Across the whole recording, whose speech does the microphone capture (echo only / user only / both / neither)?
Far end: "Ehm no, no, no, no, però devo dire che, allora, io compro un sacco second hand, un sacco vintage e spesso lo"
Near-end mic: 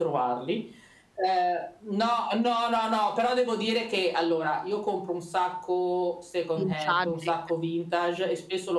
both